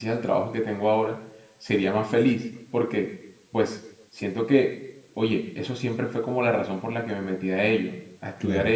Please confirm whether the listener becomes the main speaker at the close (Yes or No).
No